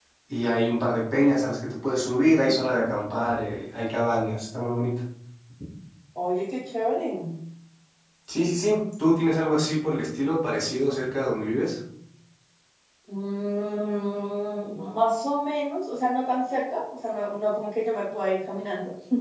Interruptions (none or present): none